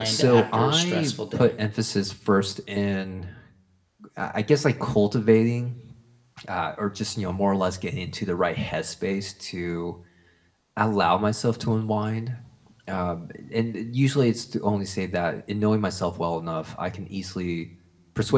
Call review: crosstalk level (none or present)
present